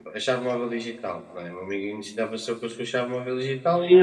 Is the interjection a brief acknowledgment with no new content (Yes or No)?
No